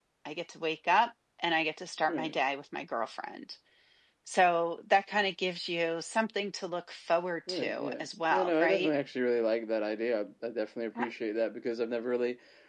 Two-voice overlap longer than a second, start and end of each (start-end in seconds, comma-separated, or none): 7.5-8.9